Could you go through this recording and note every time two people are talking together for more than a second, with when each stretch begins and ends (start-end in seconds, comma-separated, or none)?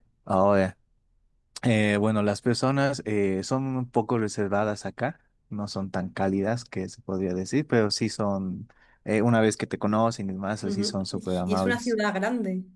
10.6-11.9